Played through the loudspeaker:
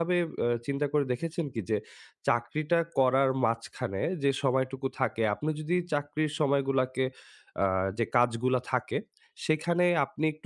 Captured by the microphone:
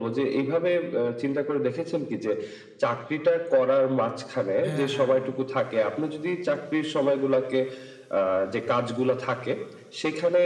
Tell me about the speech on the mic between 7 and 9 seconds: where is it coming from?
echo only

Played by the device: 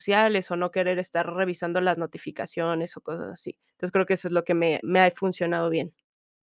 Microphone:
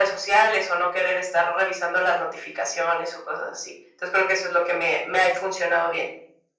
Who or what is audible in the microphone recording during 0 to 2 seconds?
echo only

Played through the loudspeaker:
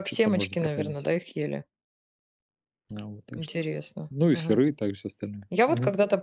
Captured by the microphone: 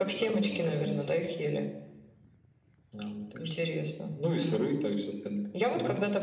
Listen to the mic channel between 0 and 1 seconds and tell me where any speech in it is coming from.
echo only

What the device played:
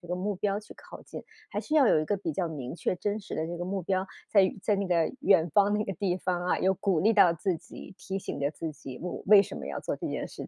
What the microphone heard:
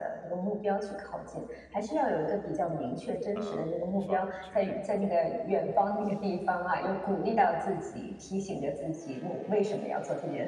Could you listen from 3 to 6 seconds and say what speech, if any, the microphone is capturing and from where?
both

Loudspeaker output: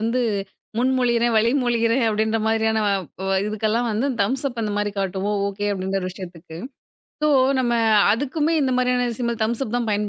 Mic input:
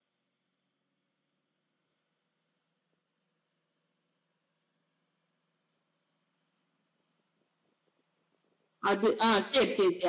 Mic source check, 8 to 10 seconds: user only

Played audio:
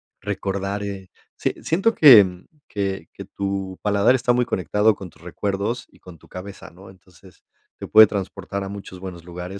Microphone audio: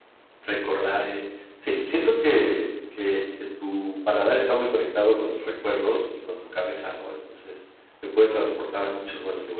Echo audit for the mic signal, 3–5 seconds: echo only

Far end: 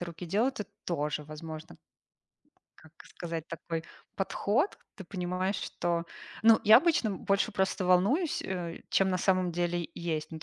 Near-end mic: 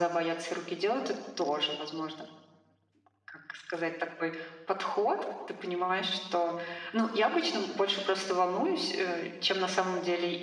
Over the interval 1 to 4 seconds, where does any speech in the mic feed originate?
echo only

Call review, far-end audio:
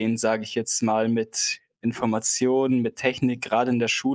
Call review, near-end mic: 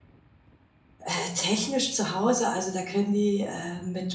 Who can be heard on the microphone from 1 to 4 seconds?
user only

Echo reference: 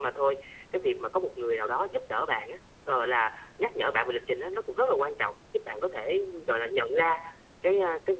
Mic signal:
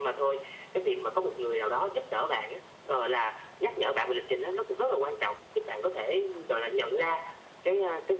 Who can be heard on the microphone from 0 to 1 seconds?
echo only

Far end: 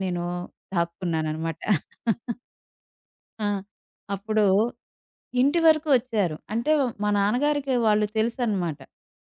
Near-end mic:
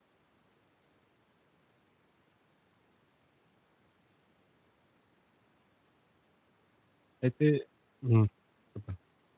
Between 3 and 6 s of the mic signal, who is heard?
neither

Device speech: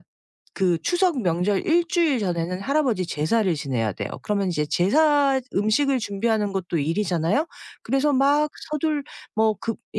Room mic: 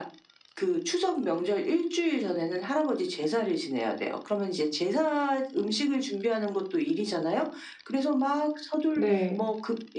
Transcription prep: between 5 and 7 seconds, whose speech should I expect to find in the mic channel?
echo only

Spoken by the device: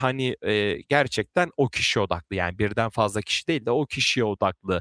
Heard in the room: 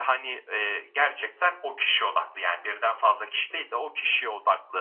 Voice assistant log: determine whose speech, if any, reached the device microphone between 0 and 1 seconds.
echo only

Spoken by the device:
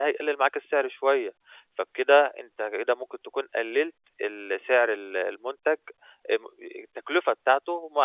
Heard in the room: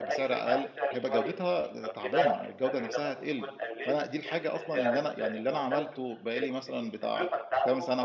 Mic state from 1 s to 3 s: both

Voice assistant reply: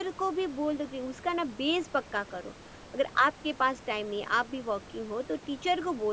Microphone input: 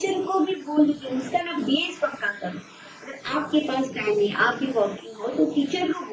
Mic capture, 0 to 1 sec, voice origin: echo only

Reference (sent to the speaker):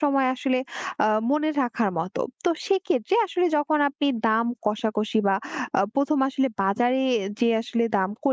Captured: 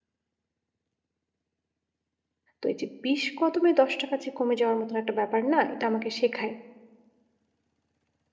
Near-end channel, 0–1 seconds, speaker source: neither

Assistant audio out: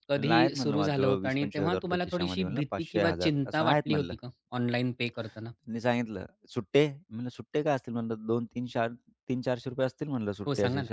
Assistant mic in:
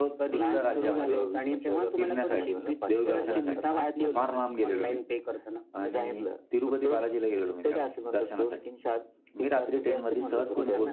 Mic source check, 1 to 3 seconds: both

